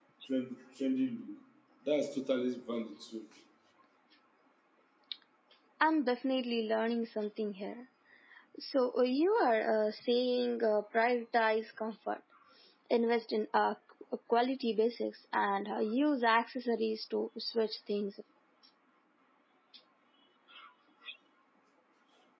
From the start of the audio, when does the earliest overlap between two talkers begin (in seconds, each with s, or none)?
none